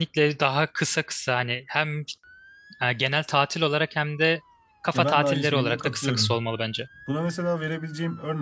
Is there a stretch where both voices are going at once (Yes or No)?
Yes